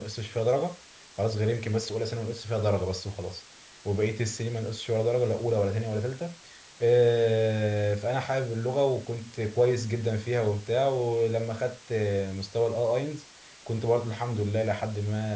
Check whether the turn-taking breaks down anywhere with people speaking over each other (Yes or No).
No